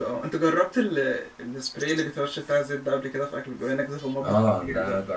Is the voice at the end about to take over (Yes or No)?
Yes